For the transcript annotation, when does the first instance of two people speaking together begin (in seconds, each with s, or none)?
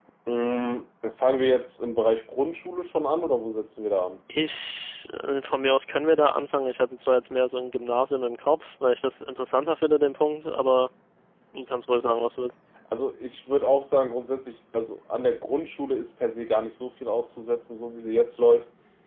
none